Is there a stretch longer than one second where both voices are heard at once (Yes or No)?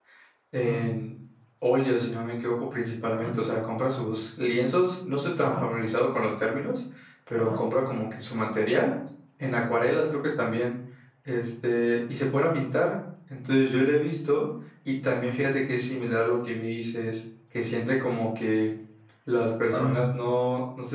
No